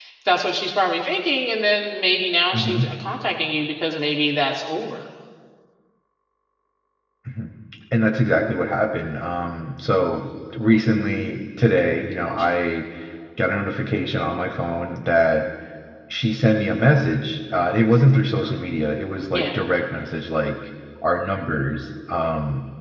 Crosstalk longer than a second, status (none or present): none